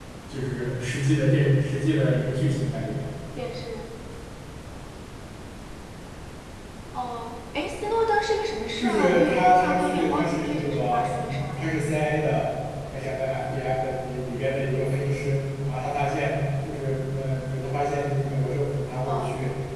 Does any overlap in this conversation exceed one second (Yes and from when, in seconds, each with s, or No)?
Yes, from 8.8 s